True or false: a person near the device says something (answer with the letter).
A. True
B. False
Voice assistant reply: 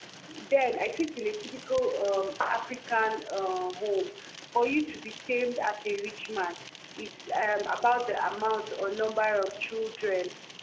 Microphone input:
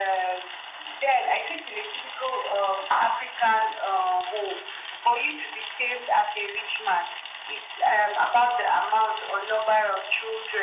B